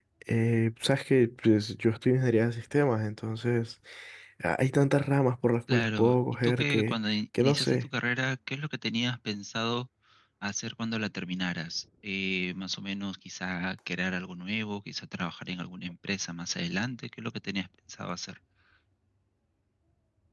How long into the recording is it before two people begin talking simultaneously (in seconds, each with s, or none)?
5.7 s